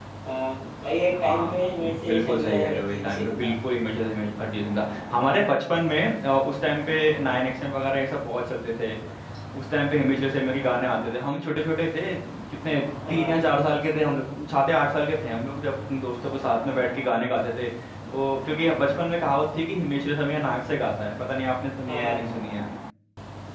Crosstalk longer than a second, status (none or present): present